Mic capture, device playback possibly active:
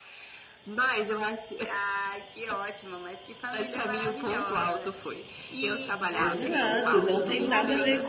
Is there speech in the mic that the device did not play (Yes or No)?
Yes